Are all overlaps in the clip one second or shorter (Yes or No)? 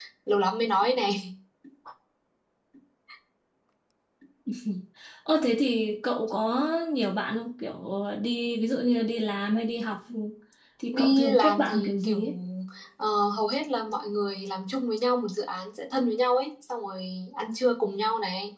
No